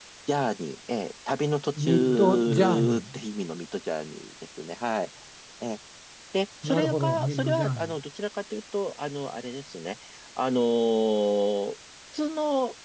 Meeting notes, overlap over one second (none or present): present